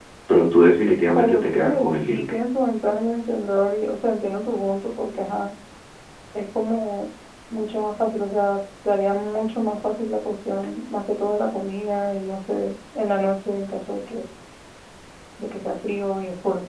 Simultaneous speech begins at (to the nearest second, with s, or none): 1 s